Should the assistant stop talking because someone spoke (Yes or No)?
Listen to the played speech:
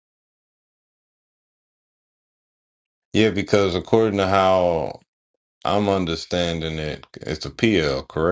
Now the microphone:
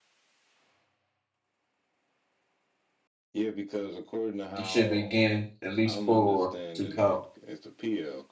Yes